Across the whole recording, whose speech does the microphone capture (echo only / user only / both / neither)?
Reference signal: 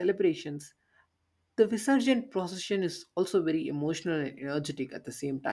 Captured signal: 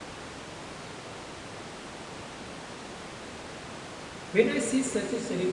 user only